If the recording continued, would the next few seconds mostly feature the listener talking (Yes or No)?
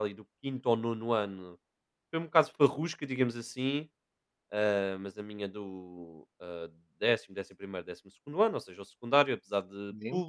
No